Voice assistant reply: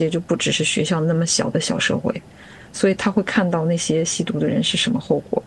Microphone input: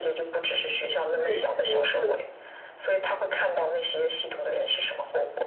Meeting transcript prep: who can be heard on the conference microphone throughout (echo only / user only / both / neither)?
both